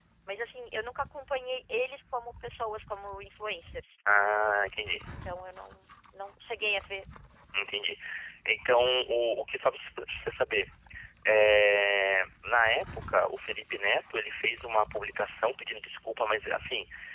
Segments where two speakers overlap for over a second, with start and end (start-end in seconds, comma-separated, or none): none